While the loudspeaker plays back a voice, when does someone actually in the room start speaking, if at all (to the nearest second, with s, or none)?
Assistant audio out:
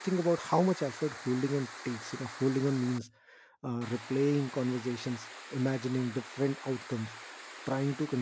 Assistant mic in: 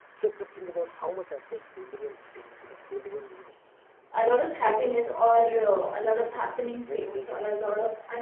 4 s